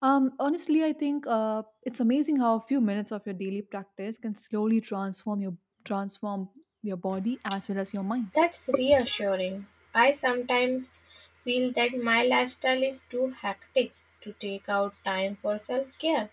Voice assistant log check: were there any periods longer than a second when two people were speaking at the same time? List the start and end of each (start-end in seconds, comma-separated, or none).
none